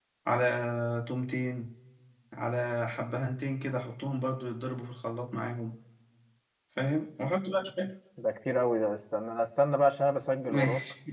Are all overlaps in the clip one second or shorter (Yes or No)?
Yes